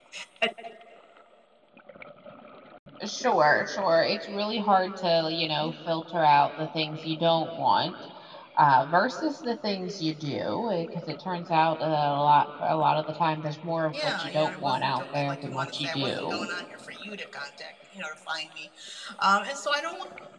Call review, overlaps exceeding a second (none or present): present